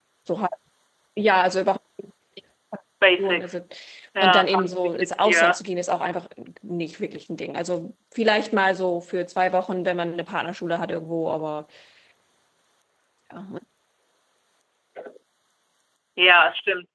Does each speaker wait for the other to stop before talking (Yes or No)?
No